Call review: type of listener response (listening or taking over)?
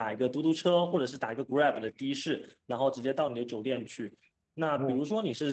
listening